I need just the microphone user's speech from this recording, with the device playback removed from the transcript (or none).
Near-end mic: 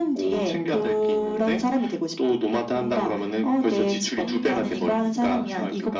음.